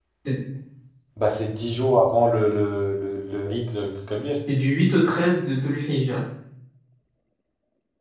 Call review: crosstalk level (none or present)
none